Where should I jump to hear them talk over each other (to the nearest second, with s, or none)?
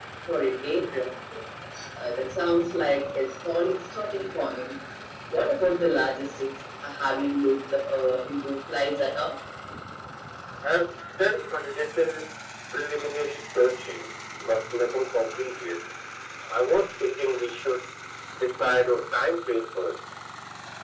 none